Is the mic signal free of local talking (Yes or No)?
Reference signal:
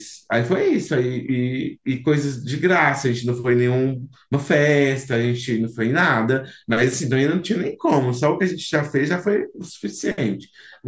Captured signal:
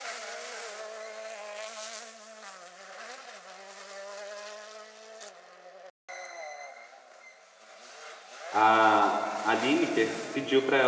No